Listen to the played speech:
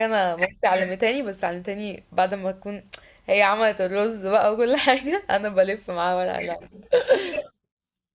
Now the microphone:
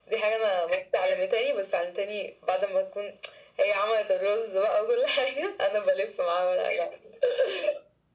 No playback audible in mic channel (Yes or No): No